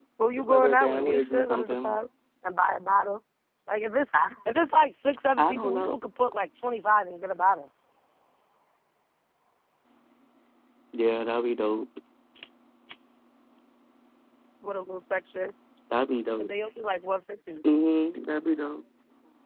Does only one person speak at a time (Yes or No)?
No